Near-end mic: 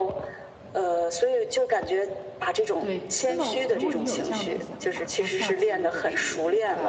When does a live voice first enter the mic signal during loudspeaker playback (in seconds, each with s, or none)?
2.8 s